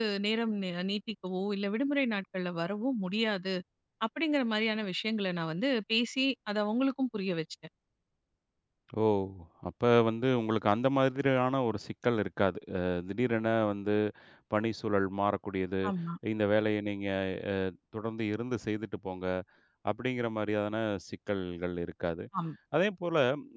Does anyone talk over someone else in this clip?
No

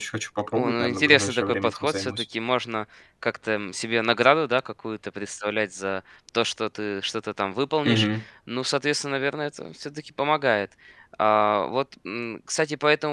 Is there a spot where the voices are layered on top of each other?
Yes, from 0.5 s

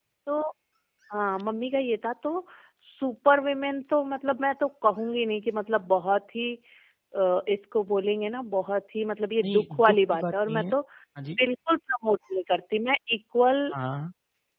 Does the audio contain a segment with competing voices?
Yes, from 9.4 s

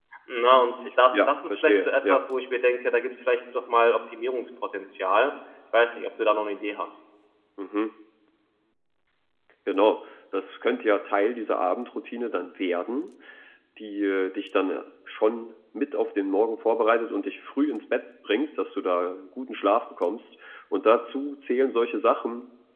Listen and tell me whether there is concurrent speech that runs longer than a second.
Yes, from 0.8 s

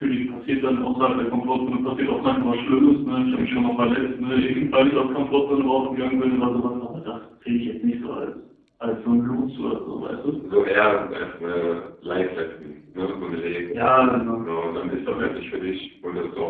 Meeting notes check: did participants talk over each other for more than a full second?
No

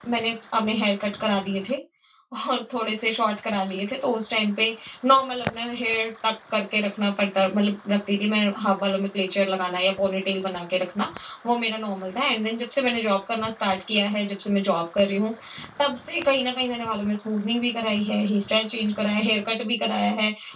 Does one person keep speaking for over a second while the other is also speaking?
No

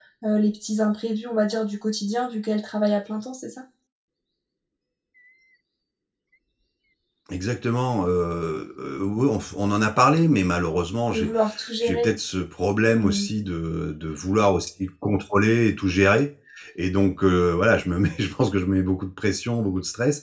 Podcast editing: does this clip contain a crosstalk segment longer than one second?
No

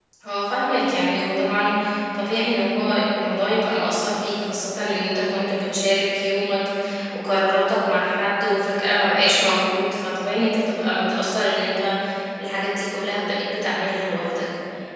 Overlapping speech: No

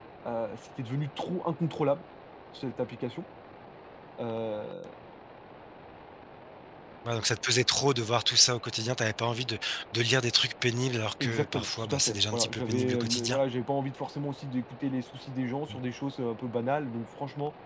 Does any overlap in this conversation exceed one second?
Yes, from 11.2 s

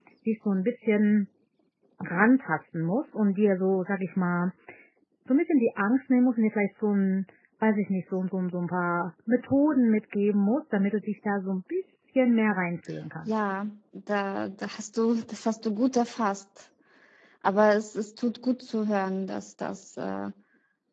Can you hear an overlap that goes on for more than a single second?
No

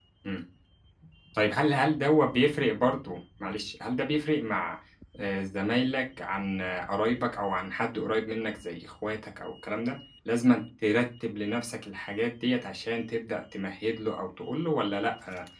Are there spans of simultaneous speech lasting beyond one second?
No

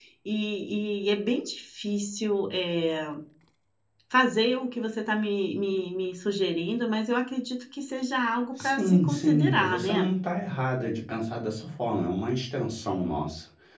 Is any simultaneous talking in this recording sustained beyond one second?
Yes, from 8.6 s

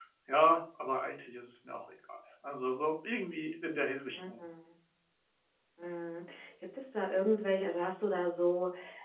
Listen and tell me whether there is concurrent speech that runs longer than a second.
No

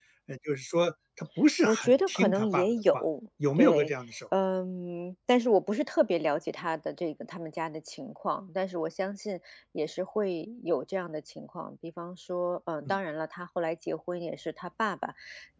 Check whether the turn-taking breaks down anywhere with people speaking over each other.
Yes, from 1.6 s

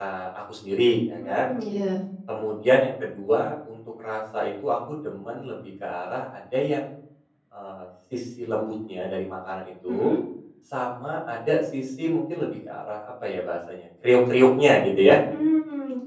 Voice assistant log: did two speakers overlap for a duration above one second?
No

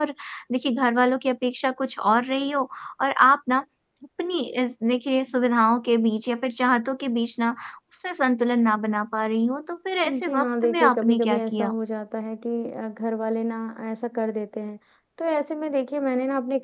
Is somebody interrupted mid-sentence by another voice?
Yes, from 10.0 s

